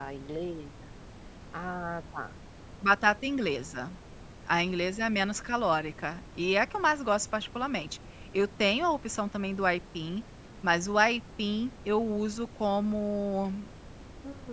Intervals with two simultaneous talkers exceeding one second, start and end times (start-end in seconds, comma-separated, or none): none